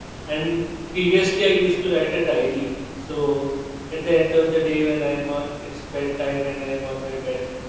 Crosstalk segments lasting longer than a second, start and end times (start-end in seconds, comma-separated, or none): none